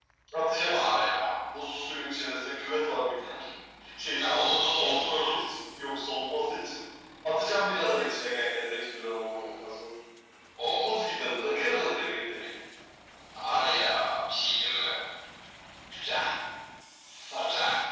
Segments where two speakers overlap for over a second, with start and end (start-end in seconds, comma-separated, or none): 4.2-5.4